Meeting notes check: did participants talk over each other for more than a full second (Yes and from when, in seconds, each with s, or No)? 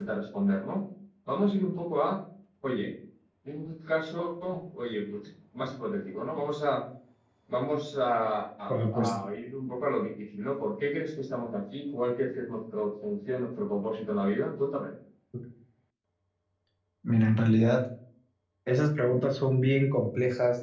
No